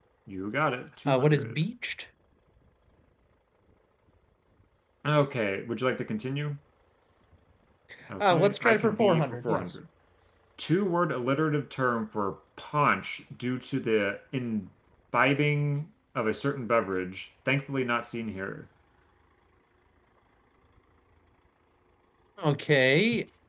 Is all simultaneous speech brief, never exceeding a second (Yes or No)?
No